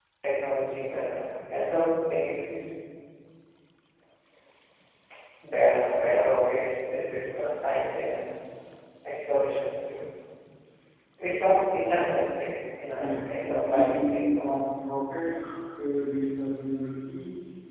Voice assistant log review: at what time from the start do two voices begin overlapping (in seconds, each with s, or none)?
13.0 s